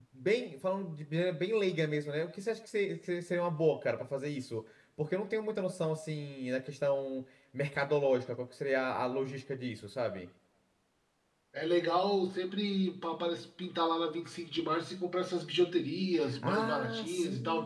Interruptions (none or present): present